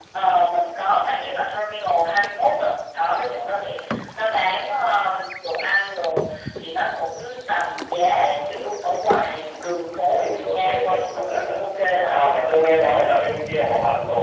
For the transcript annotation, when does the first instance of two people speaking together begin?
10.2 s

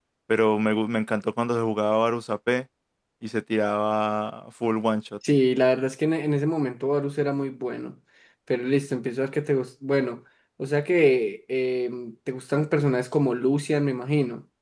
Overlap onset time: none

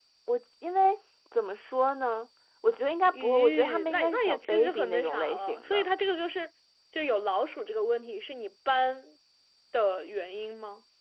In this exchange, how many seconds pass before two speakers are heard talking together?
3.1 s

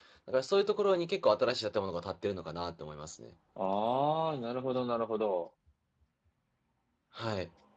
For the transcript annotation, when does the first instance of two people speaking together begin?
none

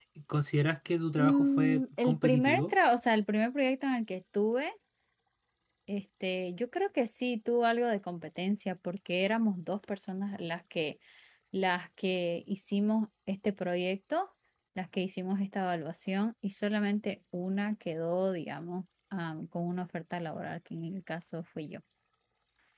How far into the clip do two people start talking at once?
1.2 s

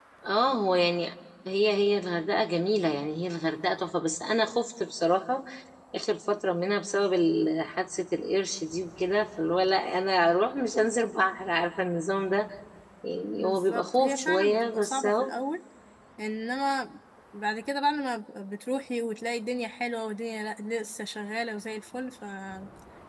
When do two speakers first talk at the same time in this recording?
13.3 s

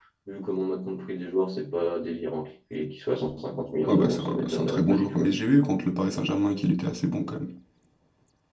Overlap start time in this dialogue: 3.9 s

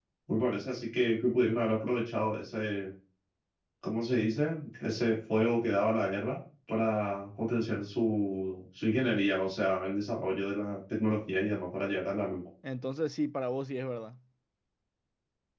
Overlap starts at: none

